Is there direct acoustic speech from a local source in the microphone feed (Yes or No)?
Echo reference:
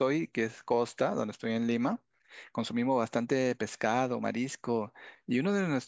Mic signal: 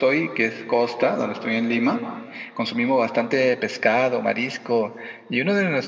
No